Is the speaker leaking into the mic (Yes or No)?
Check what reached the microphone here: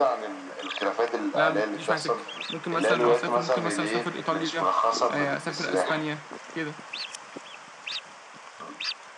Yes